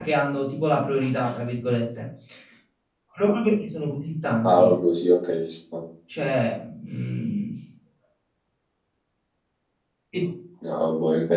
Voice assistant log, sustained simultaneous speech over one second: none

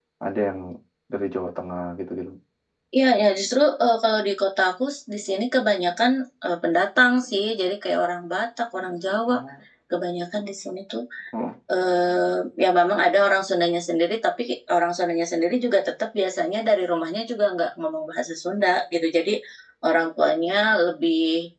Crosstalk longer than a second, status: none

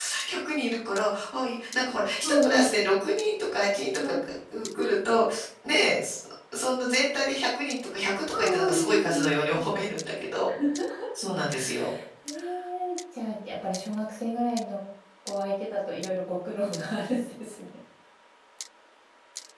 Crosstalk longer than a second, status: present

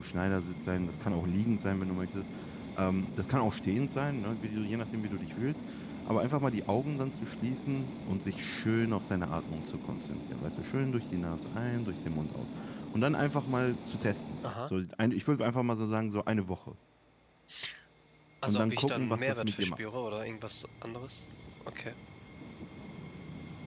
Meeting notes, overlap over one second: present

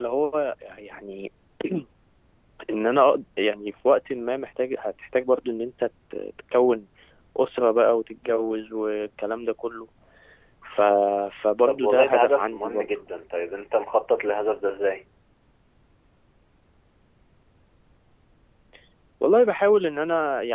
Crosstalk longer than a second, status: present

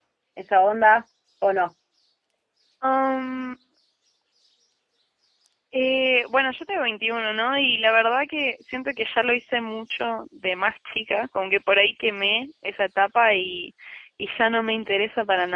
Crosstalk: none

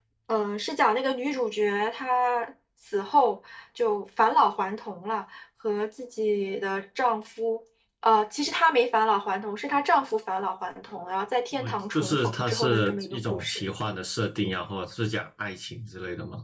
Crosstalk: present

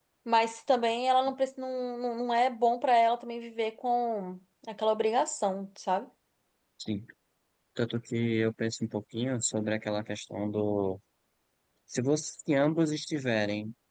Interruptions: none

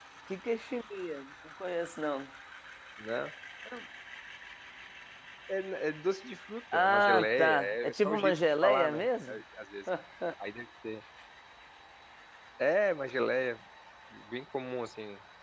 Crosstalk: present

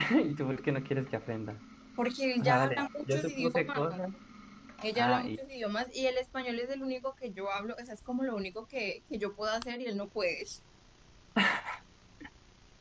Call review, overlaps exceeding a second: present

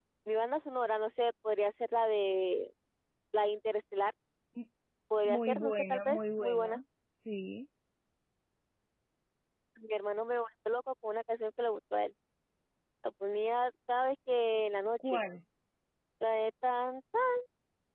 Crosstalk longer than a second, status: present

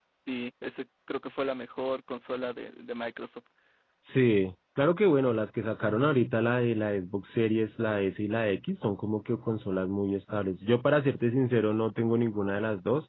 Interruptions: none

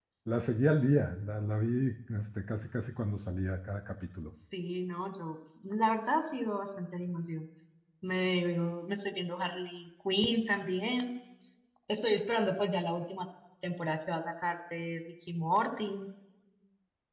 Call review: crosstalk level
none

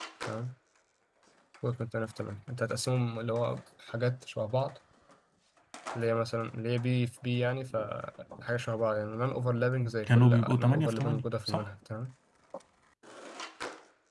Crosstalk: present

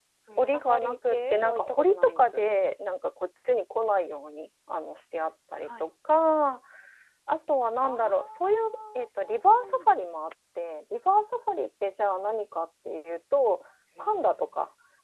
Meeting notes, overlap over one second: present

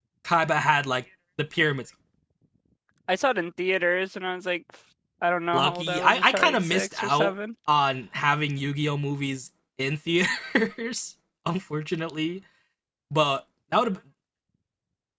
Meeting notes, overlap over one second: present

